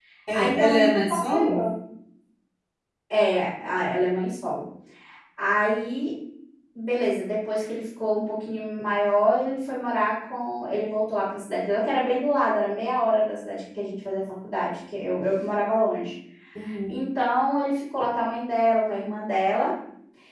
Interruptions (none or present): present